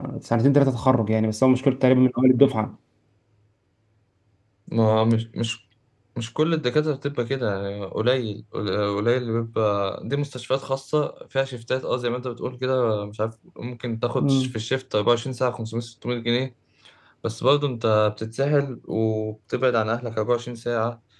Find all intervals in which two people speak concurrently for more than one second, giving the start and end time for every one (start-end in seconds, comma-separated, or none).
none